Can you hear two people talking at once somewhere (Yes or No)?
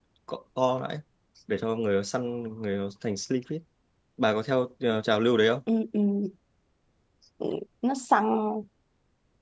No